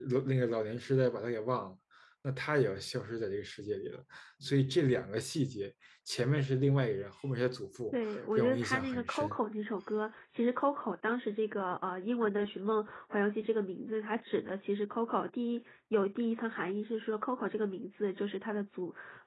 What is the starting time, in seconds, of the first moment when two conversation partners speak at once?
7.9 s

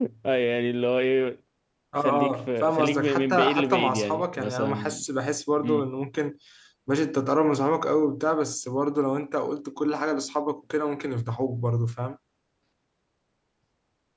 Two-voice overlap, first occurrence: 2.0 s

